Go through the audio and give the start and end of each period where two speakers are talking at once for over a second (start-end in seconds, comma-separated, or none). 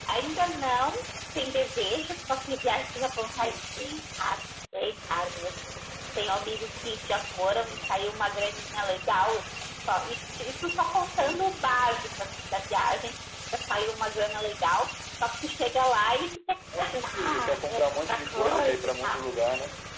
16.8-19.2